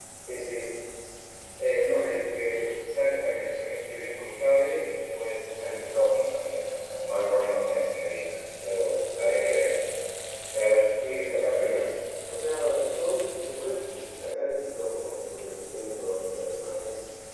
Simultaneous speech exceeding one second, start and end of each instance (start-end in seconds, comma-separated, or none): none